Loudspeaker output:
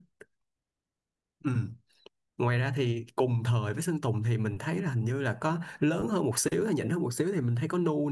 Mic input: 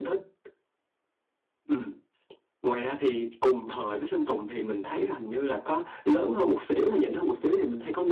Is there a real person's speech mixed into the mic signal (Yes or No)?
No